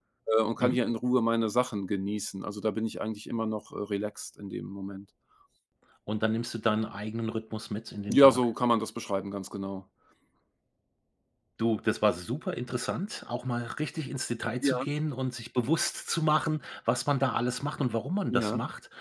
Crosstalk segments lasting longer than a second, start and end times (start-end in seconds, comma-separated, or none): none